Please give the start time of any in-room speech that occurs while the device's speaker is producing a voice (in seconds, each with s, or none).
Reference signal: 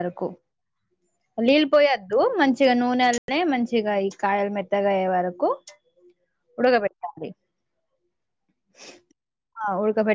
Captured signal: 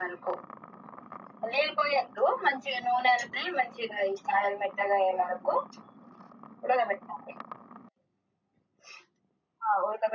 none